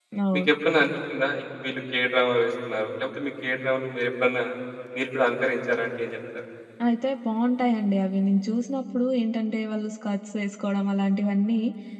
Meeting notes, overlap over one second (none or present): none